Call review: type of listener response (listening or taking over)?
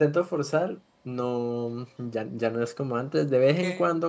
listening